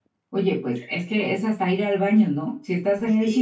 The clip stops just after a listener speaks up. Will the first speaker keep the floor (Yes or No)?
Yes